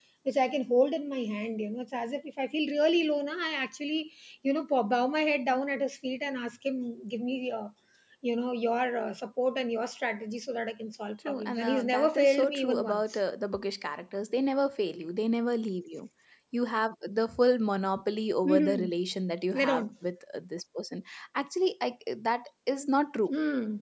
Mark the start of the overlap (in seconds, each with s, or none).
11.3 s